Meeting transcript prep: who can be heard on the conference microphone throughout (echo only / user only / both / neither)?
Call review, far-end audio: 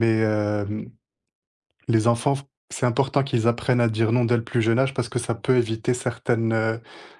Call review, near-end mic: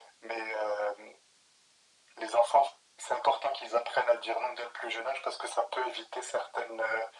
echo only